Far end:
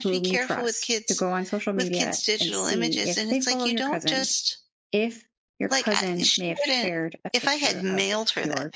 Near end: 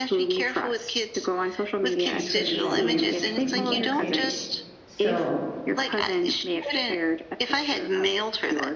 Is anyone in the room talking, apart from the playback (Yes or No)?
Yes